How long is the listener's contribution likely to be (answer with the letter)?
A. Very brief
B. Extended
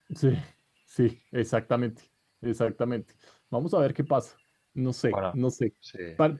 A